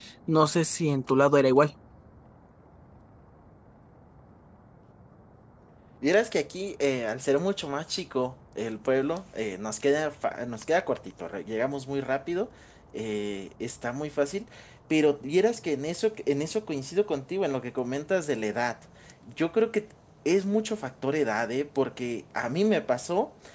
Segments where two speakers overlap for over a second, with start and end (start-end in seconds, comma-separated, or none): none